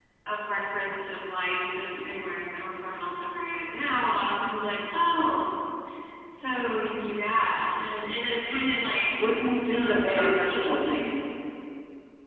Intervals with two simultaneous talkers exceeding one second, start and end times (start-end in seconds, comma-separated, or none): 9.7-11.0